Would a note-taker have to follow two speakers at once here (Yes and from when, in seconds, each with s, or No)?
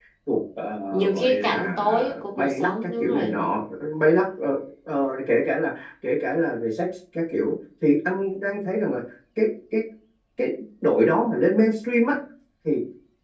Yes, from 0.9 s